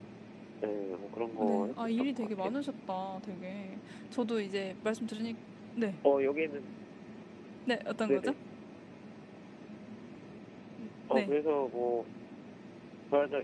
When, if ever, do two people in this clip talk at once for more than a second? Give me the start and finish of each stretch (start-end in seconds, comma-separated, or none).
1.3-2.6